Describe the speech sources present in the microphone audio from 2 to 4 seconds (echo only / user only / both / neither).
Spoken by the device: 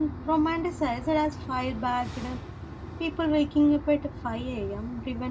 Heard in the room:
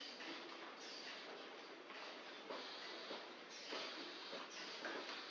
neither